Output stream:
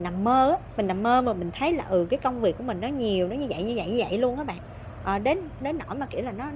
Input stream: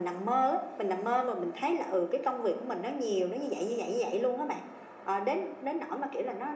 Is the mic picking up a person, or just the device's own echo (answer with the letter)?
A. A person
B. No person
B